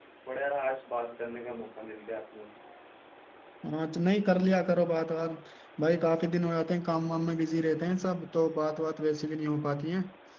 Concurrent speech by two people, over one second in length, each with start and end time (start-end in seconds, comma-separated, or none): none